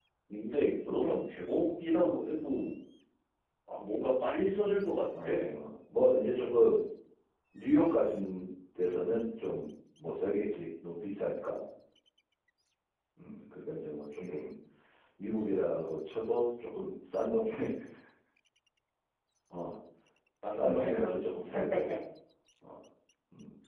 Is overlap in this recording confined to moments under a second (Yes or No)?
Yes